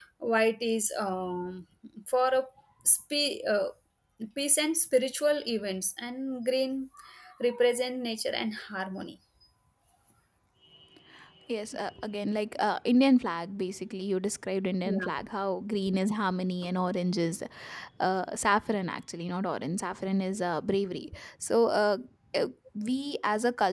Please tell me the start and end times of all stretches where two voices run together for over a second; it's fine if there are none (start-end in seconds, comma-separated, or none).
none